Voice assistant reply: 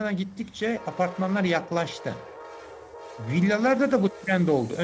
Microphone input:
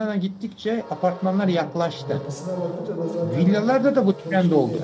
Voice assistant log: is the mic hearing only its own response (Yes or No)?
No